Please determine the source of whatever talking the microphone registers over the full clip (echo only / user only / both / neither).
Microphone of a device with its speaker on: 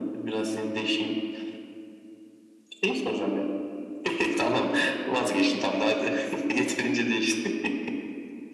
echo only